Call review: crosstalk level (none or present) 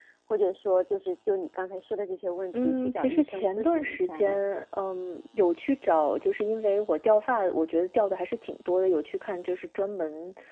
present